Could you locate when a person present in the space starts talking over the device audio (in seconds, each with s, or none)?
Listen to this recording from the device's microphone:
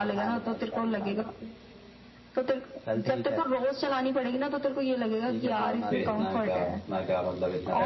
5.9 s